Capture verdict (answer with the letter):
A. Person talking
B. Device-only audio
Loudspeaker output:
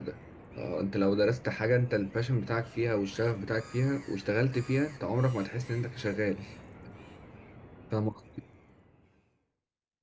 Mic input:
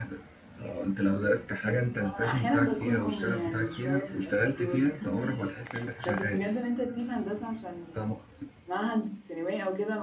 A